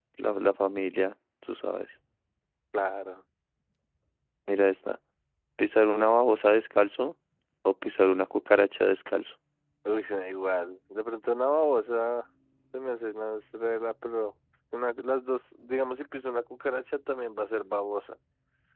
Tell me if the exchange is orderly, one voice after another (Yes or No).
Yes